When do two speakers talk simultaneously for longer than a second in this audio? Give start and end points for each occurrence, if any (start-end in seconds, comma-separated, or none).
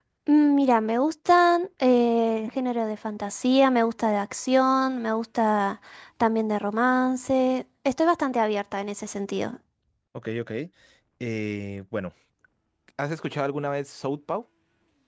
none